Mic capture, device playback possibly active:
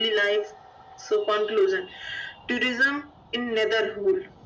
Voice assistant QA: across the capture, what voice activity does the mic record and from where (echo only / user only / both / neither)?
echo only